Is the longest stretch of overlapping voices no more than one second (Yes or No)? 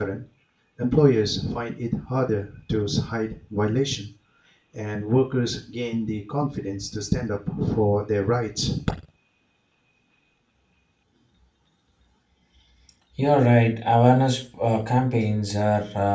Yes